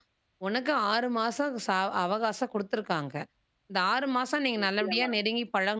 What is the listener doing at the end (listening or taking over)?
listening